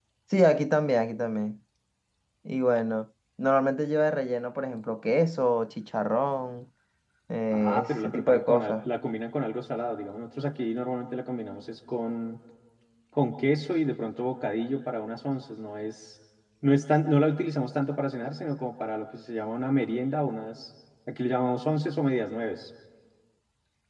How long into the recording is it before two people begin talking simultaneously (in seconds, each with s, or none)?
7.5 s